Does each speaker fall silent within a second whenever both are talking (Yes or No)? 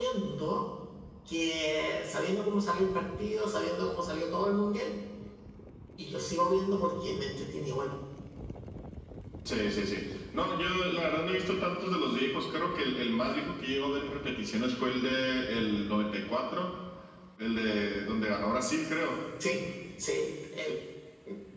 Yes